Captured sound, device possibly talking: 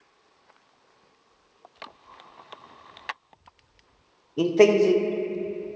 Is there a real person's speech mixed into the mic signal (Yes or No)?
Yes